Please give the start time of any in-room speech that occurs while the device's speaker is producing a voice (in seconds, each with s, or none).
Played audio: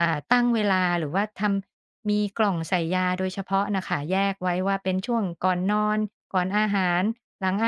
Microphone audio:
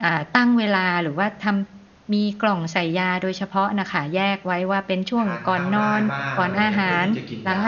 5.1 s